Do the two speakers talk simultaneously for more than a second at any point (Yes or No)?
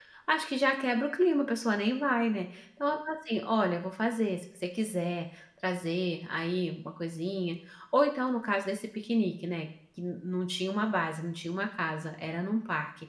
No